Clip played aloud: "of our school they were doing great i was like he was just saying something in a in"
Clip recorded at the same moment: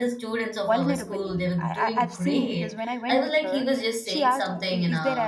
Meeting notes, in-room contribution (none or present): present